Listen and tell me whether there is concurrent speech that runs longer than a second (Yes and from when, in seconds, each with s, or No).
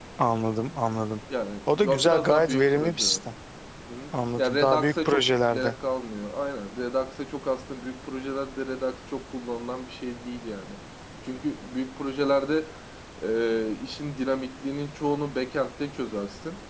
Yes, from 1.7 s